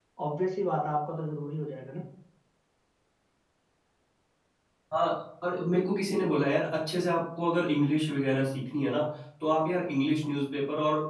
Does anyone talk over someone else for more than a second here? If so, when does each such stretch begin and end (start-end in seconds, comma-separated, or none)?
none